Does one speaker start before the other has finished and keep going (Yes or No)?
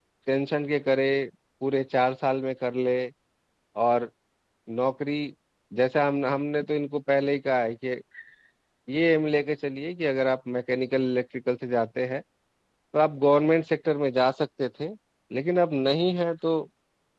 No